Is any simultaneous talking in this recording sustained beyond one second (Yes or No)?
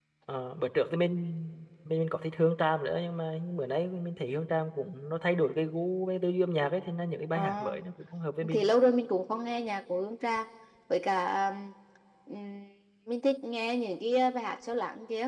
No